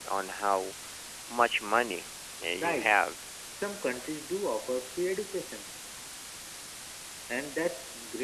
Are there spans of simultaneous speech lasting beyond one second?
No

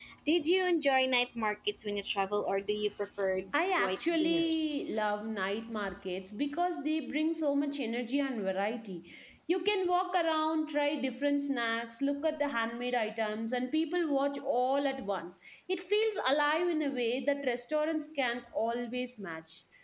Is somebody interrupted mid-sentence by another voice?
Yes, from 3.5 s

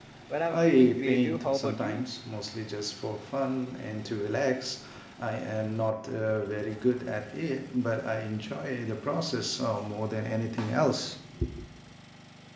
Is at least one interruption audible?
Yes, from 0.5 s

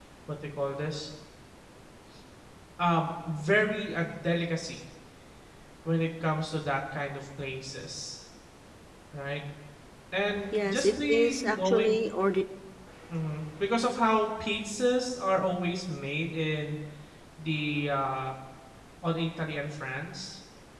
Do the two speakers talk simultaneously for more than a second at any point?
Yes, from 10.6 s

